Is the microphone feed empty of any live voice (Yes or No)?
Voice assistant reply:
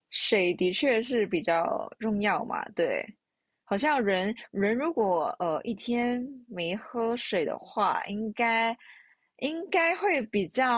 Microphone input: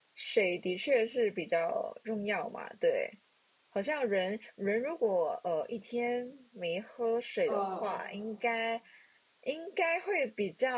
No